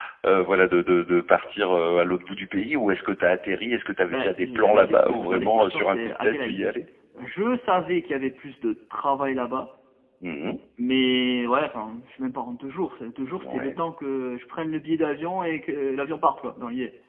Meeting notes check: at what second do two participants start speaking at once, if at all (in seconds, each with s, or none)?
4.1 s